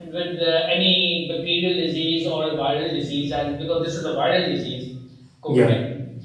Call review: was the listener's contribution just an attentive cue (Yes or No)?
Yes